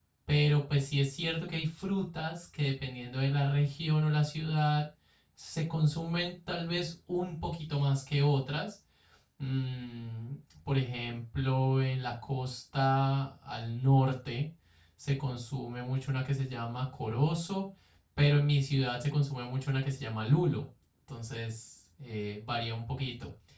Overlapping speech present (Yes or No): No